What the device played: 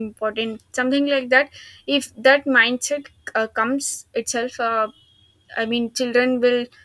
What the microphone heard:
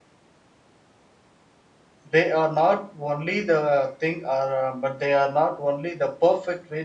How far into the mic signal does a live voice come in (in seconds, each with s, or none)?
2.1 s